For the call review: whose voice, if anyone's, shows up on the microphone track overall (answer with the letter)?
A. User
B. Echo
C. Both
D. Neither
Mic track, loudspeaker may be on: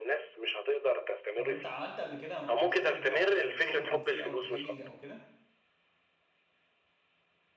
C